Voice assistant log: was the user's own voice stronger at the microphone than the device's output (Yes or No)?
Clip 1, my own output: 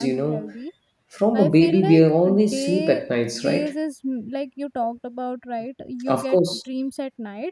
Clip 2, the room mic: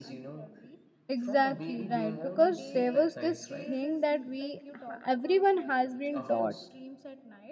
Yes